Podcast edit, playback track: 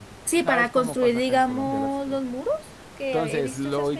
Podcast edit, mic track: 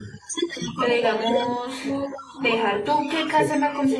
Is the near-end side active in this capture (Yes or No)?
Yes